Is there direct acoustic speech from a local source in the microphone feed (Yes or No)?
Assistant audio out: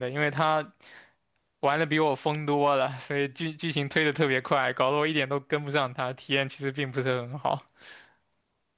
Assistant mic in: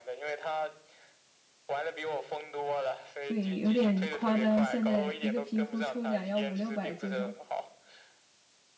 Yes